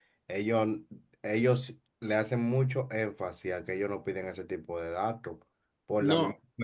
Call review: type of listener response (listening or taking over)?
listening